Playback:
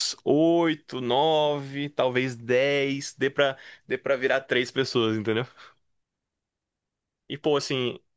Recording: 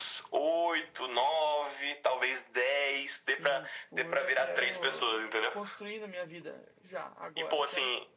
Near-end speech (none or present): present